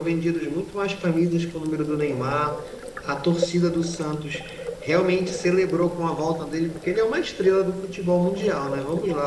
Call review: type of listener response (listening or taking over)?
listening